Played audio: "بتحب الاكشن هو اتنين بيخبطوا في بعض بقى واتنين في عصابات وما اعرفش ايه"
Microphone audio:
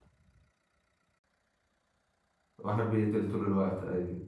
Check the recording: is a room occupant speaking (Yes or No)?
Yes